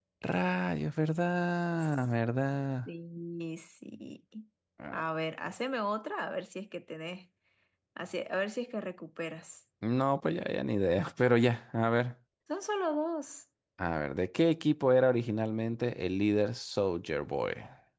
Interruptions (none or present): none